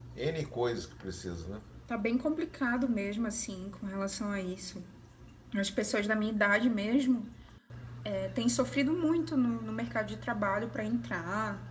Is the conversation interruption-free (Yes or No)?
Yes